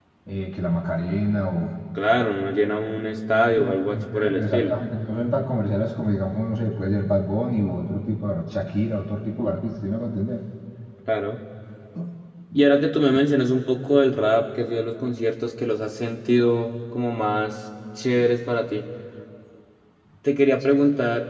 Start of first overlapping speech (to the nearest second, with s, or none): 3 s